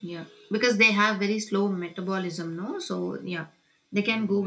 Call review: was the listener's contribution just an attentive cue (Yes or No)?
No